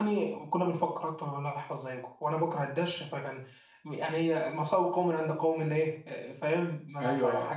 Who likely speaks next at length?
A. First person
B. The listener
B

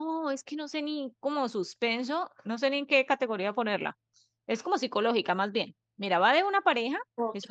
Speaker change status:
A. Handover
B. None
B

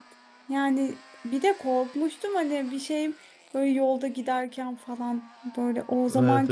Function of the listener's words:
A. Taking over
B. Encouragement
B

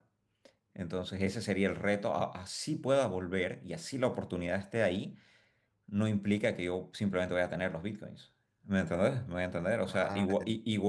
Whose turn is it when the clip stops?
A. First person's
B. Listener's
A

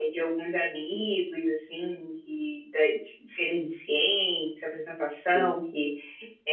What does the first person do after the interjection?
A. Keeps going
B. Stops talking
A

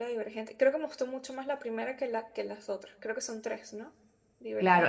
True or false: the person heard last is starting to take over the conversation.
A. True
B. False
A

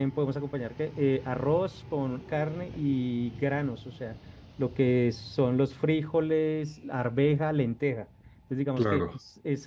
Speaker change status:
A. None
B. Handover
A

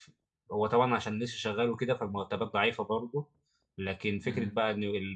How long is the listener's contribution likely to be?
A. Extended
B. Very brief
B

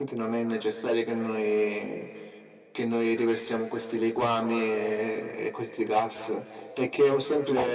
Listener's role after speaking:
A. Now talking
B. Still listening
B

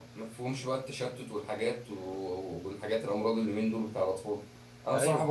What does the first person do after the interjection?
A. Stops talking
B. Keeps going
B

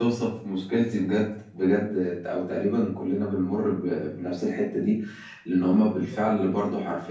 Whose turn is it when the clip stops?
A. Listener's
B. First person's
B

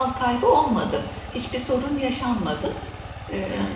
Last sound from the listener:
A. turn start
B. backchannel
A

